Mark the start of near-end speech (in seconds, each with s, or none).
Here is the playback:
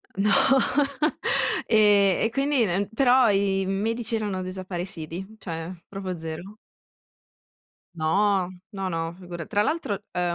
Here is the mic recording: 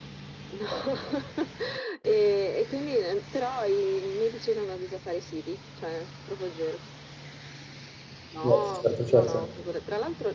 8.4 s